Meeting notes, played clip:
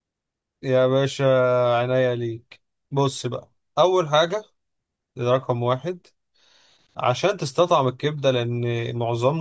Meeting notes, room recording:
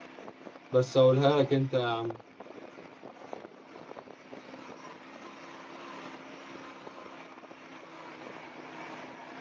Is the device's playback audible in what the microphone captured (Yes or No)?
No